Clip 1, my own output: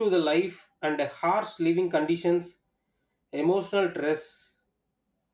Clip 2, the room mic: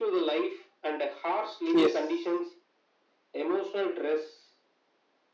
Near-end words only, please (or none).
yes,